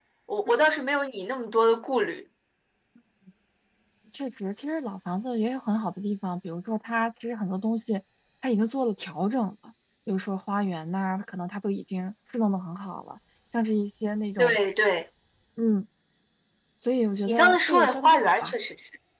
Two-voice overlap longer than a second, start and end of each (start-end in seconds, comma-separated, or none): 17.3-18.5